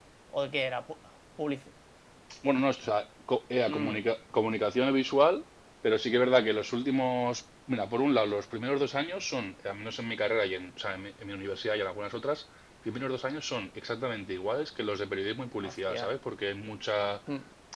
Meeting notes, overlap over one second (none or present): none